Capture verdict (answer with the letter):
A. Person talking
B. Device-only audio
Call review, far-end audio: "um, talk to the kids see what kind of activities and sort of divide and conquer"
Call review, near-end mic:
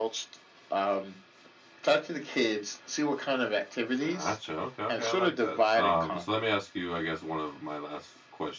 A